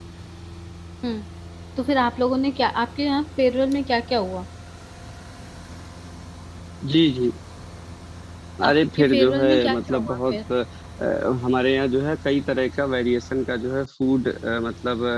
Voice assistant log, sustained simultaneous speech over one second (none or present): present